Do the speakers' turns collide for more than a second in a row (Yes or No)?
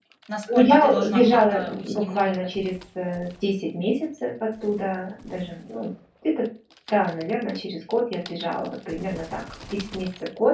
Yes